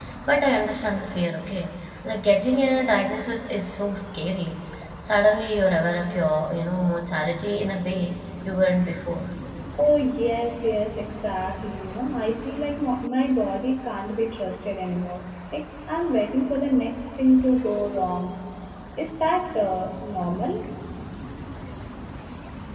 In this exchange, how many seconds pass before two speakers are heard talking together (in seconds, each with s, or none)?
none